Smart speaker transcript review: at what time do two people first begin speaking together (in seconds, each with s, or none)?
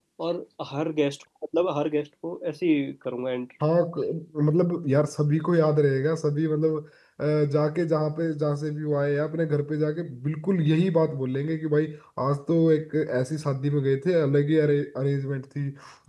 none